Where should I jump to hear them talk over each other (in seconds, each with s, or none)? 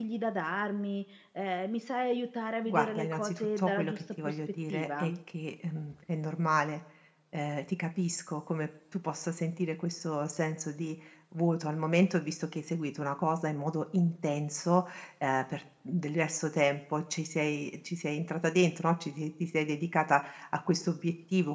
2.6 s